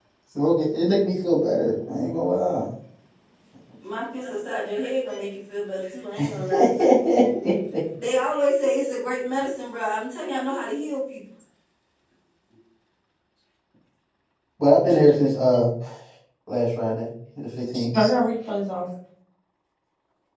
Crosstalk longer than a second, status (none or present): none